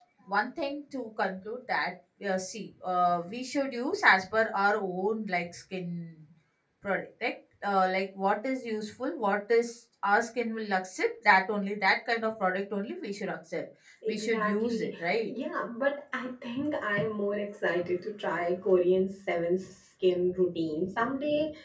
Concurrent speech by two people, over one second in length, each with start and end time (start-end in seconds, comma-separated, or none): 14.1-15.3